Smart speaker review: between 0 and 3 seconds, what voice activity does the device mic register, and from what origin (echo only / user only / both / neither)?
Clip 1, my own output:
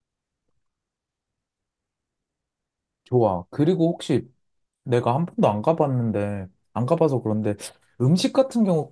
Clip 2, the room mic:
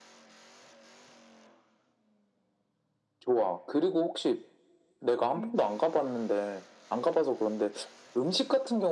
neither